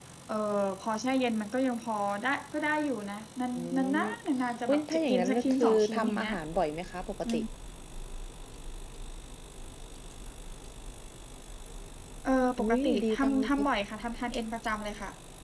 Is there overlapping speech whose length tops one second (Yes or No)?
Yes